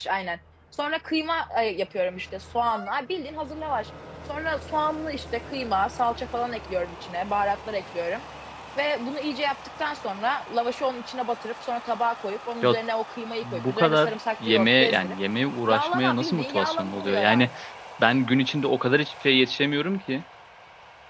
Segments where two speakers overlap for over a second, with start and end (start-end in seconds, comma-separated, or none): 13.4-15.2, 15.7-17.5